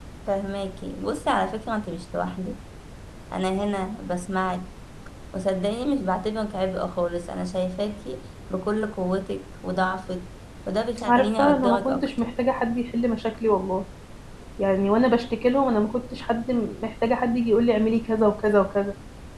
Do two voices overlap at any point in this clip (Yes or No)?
Yes